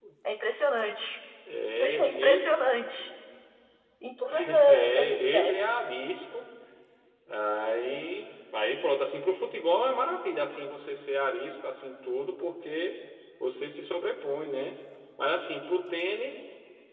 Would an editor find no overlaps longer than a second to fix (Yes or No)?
No